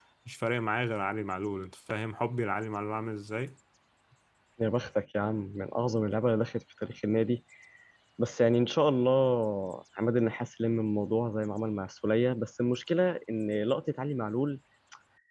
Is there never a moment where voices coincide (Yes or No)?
Yes